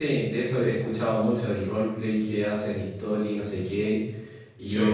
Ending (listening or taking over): listening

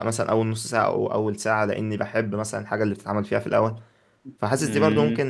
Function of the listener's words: listening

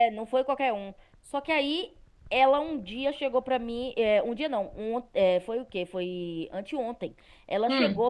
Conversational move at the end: listening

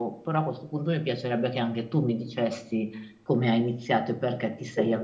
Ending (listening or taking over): listening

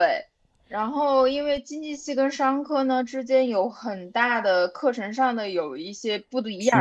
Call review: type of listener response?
listening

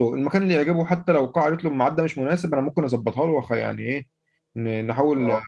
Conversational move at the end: listening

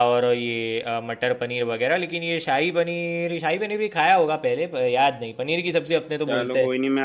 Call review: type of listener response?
taking over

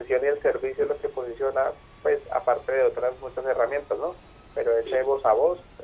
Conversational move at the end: listening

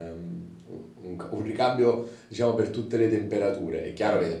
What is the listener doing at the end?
listening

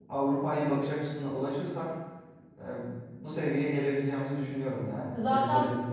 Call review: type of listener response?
taking over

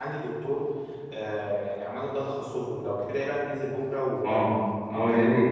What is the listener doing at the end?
taking over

